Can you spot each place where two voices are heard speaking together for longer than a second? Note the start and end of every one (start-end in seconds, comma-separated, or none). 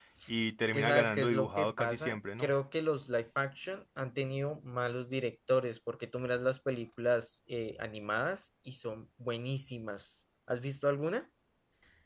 0.7-2.5